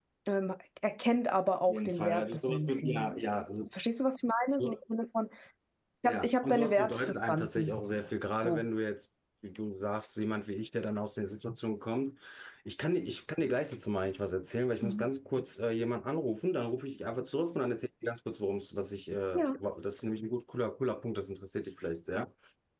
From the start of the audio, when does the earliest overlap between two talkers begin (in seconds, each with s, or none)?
1.7 s